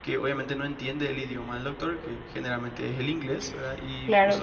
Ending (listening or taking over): taking over